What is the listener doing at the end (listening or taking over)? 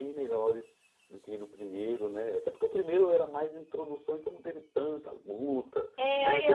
taking over